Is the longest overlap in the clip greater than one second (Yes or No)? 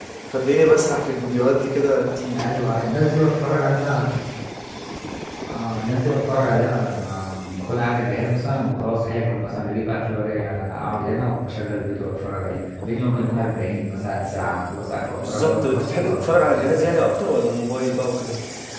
Yes